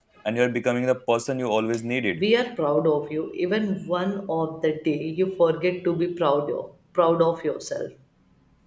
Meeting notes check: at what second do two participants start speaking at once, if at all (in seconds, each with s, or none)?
none